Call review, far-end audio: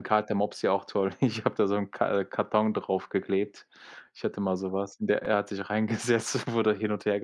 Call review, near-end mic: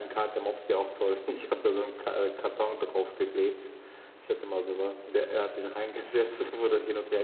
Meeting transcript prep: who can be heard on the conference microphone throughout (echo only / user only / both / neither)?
echo only